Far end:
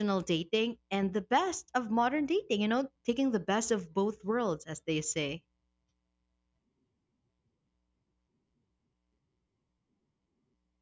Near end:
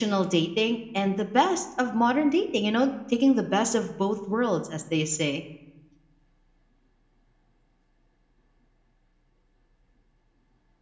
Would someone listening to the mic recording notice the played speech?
Yes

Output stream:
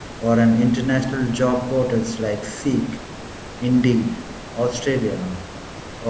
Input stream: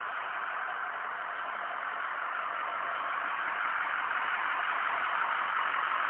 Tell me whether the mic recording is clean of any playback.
Yes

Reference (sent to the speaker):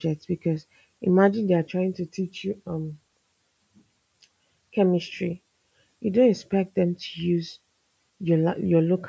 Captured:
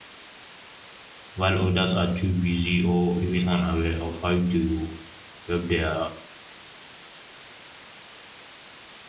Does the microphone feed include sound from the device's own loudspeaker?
No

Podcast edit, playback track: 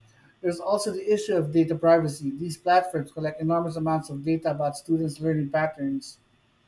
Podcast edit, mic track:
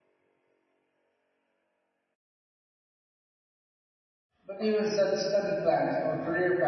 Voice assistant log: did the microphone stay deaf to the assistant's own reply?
Yes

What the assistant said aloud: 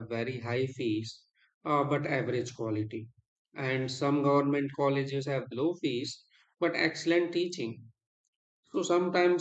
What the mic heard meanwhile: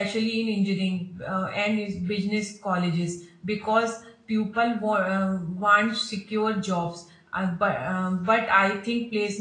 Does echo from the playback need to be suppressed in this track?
No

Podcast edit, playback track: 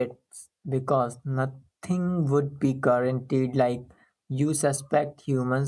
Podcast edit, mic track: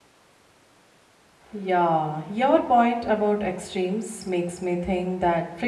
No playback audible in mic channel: Yes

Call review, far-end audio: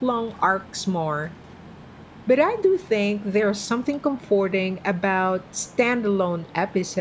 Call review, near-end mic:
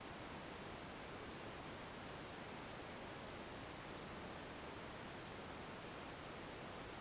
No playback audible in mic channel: Yes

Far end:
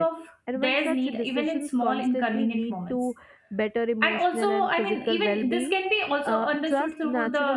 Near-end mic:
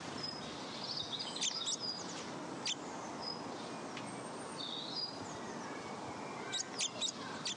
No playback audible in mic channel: Yes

